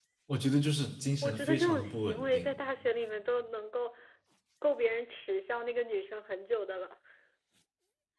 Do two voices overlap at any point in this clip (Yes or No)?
Yes